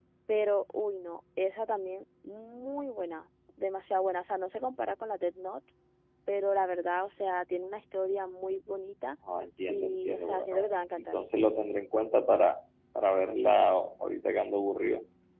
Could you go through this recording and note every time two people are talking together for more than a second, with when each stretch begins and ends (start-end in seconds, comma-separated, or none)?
9.7-11.2